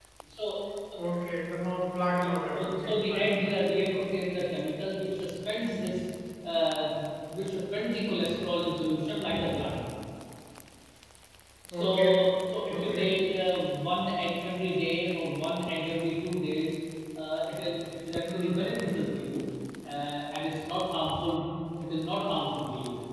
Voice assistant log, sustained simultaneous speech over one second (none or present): present